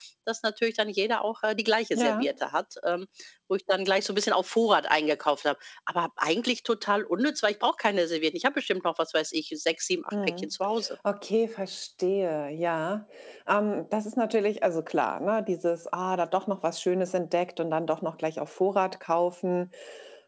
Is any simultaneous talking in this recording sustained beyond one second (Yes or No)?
No